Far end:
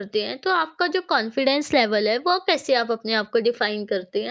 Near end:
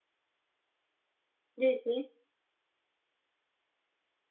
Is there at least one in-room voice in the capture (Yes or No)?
Yes